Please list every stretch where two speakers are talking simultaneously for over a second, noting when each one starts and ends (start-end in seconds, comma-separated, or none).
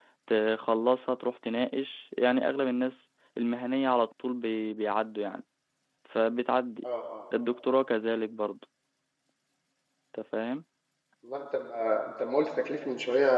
none